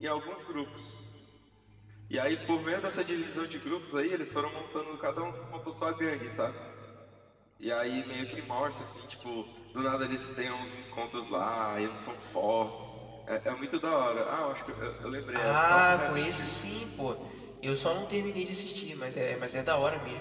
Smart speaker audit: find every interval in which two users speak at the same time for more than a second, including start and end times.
15.3-16.6

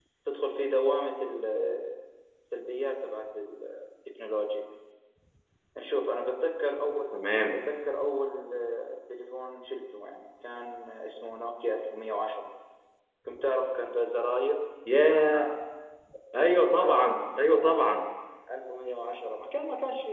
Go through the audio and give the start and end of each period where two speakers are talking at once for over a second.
none

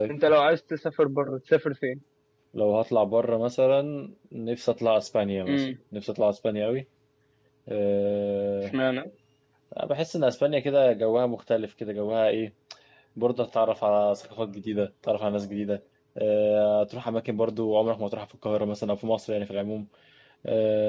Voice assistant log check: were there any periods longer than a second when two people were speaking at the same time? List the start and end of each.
none

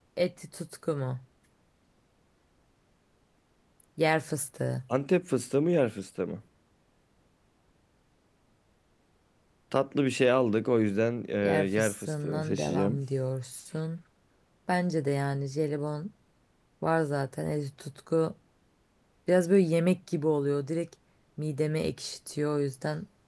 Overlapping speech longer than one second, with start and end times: 11.4-13.0

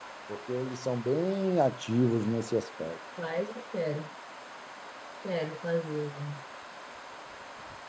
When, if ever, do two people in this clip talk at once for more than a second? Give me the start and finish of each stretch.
none

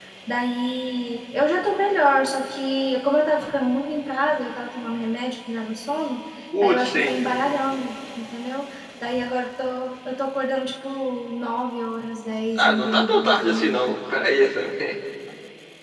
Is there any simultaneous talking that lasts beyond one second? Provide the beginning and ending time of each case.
12.6-13.9

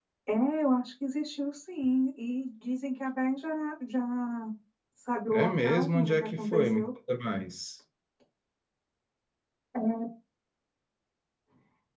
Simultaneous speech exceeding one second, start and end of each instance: 5.3-6.9

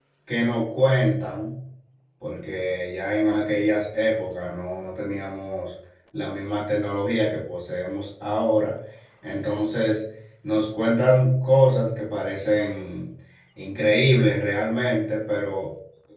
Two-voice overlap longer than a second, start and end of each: none

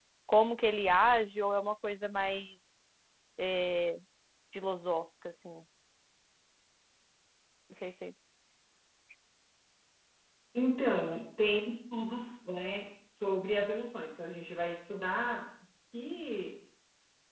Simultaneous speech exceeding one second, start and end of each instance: none

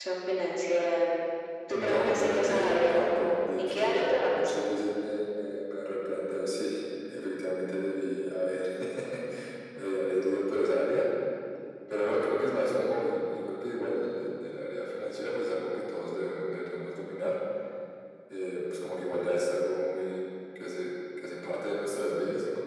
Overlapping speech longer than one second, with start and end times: 1.7-4.5

